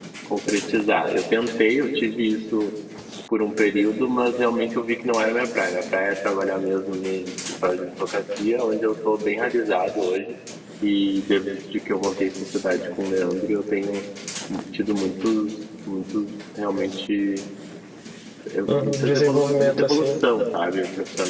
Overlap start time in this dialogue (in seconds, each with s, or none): 18.7 s